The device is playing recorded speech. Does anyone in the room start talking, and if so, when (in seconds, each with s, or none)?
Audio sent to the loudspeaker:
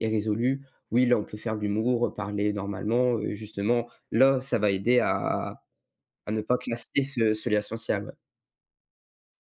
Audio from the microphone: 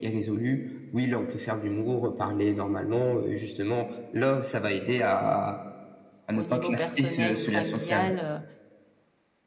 6.3 s